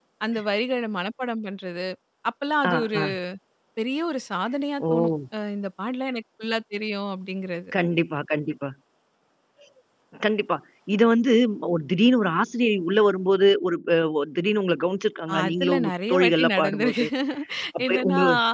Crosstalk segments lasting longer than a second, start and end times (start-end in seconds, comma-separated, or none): 15.4-17.0